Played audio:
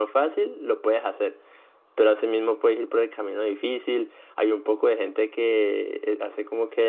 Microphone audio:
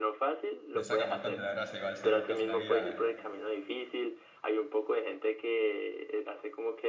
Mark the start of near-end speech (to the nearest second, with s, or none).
1 s